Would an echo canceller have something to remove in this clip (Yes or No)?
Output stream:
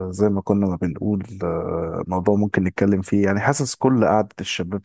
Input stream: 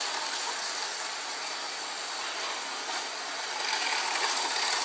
No